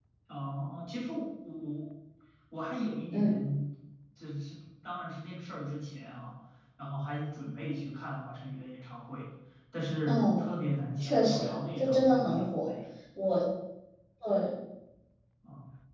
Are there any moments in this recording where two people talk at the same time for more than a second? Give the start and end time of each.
11.0-12.7

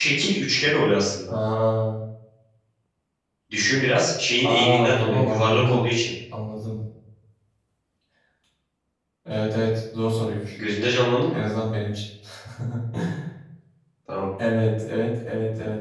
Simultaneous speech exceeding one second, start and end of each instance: 4.4-5.9

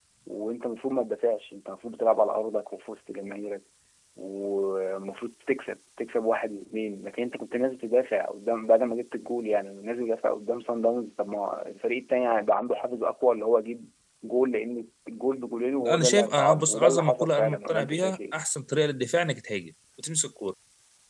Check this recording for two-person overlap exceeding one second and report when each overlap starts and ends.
15.8-18.3

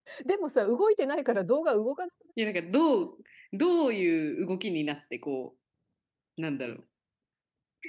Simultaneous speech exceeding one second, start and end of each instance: none

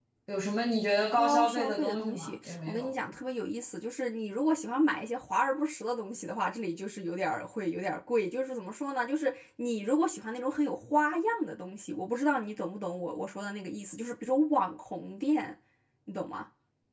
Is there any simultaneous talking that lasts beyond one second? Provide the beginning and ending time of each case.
1.2-2.9

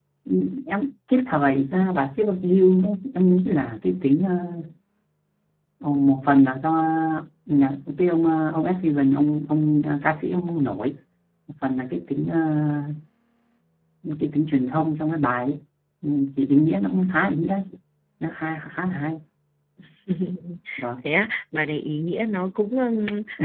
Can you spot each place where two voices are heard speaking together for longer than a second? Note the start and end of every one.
none

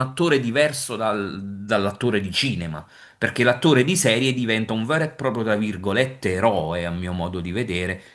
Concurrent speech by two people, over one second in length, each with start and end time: none

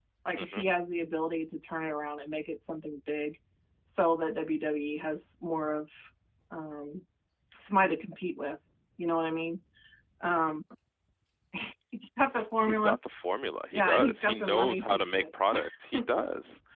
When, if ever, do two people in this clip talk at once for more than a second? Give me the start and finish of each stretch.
13.7-15.2

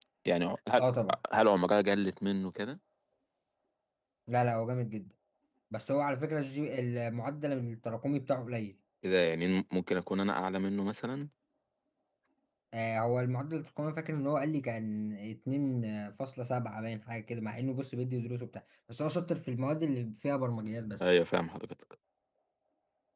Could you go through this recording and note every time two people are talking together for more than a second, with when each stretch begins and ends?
none

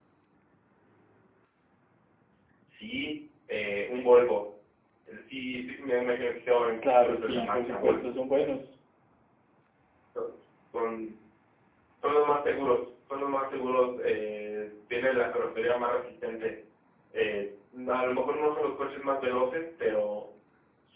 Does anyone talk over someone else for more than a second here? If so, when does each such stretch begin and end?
6.8-8.1

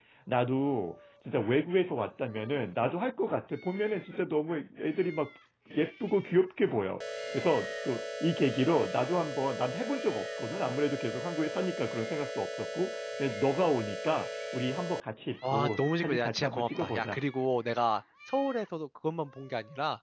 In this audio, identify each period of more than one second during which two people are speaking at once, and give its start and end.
15.5-17.2

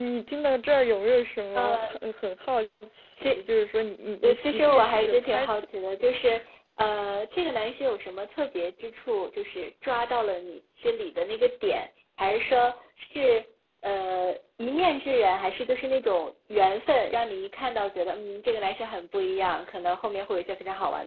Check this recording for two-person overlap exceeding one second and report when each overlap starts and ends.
4.2-5.7

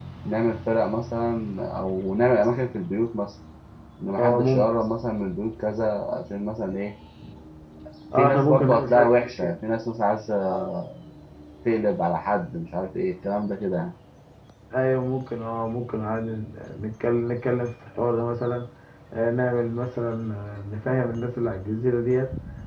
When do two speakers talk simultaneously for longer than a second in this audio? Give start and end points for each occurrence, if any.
8.2-9.6

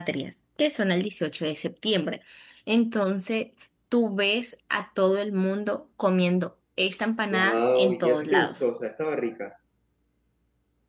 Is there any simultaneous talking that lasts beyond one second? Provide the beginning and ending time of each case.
7.3-8.6

